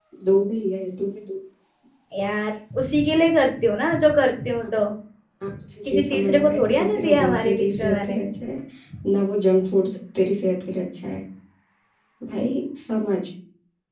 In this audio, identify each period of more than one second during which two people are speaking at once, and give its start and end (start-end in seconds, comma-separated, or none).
5.9-8.2